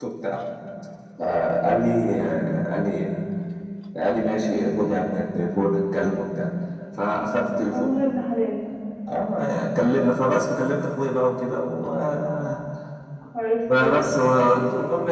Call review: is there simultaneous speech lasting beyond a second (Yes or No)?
Yes